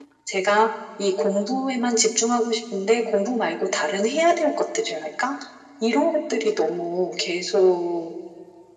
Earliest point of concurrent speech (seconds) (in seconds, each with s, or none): none